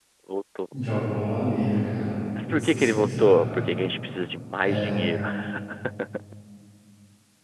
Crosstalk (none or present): present